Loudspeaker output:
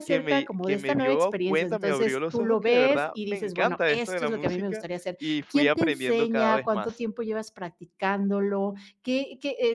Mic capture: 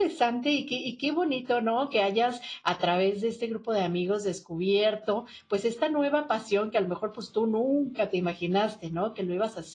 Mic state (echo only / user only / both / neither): user only